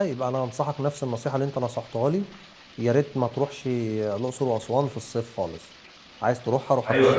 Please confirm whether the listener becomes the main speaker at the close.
Yes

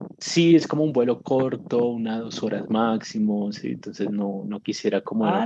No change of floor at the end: No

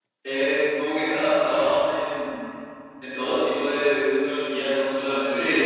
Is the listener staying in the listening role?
Yes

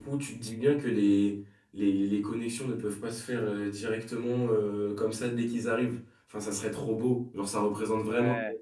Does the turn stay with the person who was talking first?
Yes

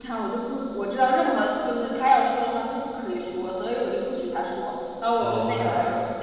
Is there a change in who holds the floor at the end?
No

